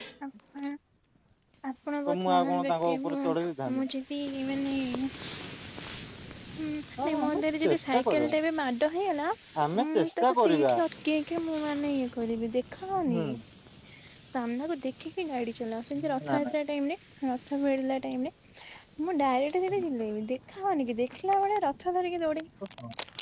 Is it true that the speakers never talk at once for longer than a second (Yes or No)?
No